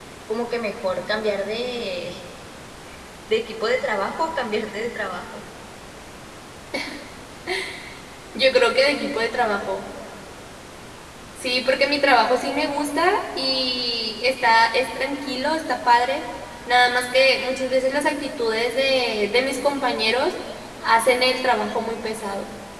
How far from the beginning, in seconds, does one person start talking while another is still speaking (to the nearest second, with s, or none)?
none